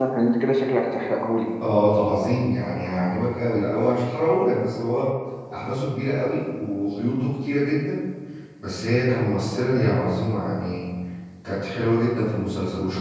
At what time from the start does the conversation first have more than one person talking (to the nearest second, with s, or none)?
none